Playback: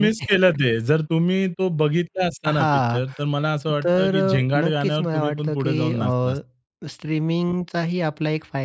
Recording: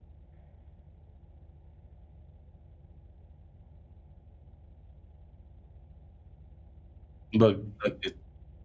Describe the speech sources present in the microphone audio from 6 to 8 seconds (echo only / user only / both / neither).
user only